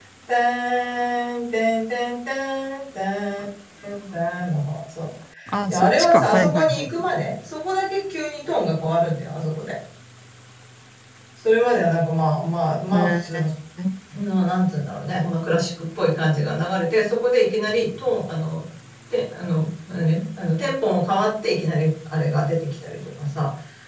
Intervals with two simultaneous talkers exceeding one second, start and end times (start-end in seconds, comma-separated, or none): 5.7-7.1